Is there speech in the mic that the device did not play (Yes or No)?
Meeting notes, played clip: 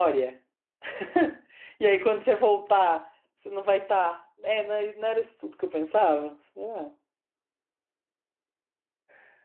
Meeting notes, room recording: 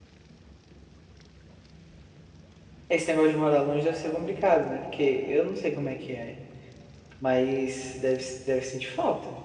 Yes